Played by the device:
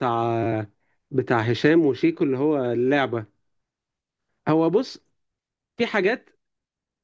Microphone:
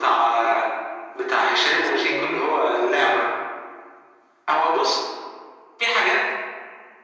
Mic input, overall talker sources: both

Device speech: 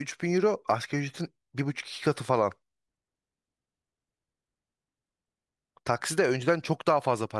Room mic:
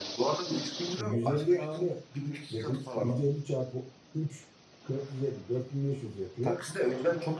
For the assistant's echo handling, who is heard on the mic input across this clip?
both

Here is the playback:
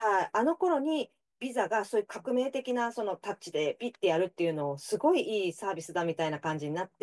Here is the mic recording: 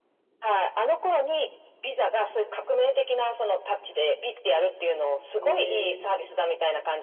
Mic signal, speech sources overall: both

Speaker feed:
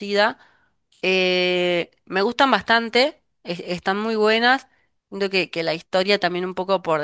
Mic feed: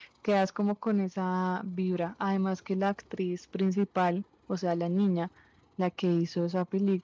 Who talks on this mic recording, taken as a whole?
user only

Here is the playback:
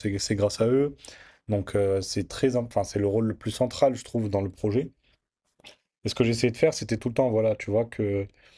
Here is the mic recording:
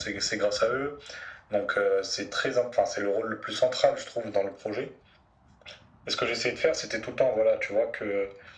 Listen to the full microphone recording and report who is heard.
echo only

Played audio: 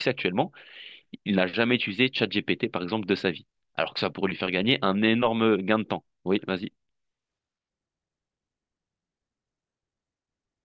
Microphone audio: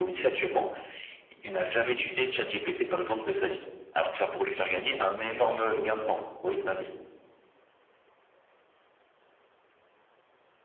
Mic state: echo only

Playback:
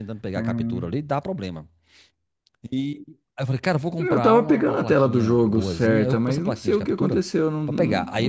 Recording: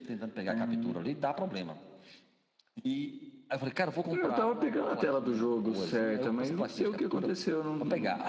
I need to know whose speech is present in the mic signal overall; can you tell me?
echo only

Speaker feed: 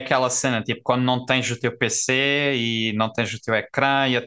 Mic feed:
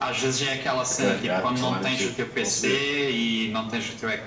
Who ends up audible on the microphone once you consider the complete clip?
both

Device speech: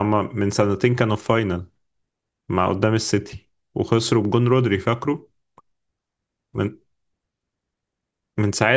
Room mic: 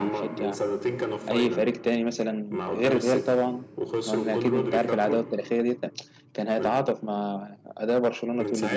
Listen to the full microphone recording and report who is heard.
both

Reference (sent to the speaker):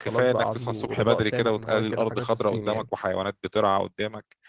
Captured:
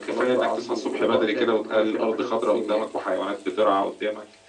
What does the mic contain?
echo only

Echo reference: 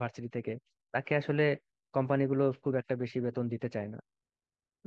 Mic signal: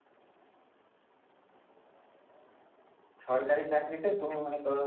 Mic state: user only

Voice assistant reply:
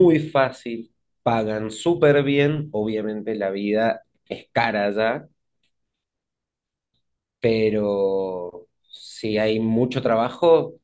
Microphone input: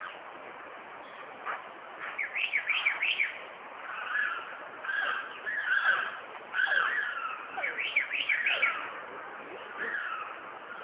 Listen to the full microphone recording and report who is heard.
neither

